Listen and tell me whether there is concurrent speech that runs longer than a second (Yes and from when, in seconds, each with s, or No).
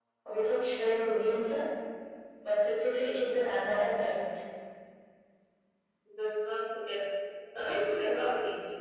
No